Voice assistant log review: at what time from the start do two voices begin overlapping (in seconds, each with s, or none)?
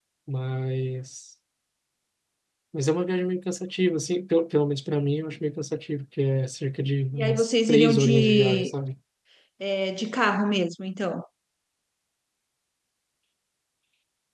7.2 s